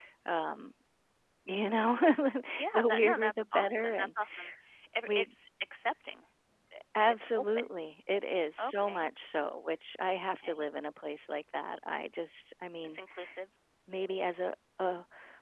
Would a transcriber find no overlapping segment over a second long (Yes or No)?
No